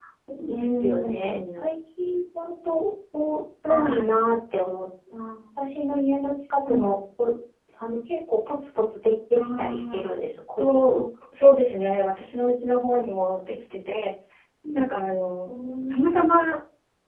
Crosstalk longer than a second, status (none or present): present